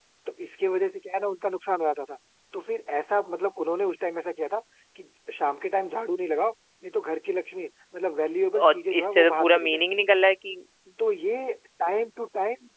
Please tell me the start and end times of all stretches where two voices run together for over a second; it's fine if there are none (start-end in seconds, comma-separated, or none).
8.6-10.0